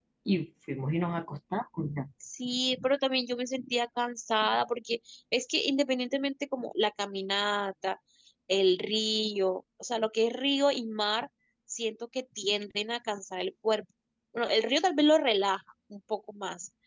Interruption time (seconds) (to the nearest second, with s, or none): none